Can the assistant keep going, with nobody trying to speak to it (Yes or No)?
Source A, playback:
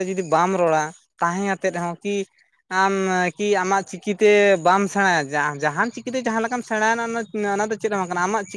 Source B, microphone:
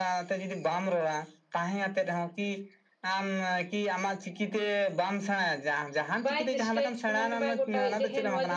No